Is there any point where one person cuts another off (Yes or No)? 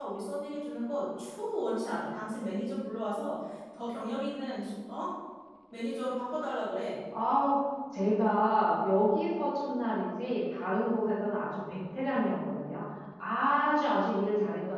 No